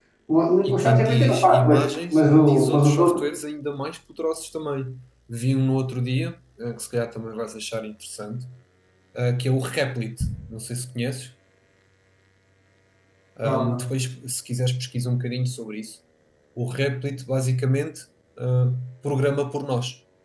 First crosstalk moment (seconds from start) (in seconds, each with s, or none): 0.7 s